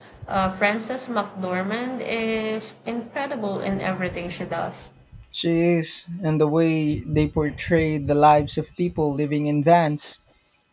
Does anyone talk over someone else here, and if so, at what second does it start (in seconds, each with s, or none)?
none